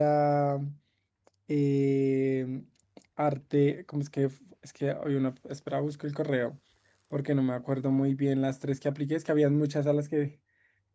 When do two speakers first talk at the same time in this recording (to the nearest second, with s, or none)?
none